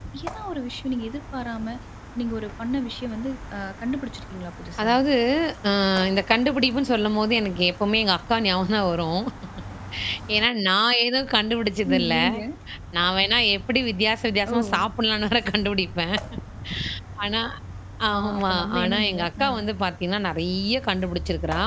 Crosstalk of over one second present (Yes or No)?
Yes